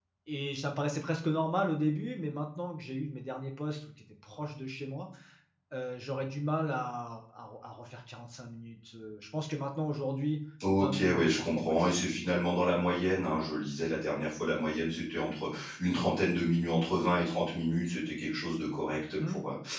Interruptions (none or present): present